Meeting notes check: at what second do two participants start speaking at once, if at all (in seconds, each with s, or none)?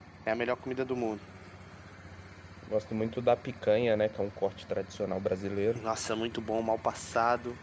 none